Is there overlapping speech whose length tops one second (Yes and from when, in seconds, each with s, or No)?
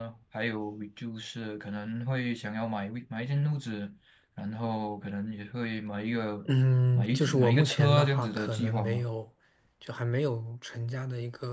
Yes, from 7.0 s